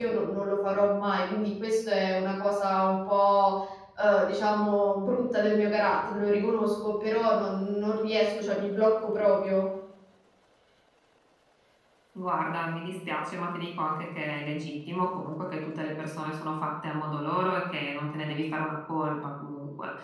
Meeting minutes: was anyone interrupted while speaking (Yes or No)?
No